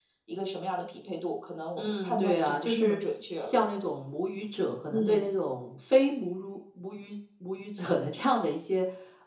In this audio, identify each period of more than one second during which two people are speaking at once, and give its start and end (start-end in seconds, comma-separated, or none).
1.8-3.0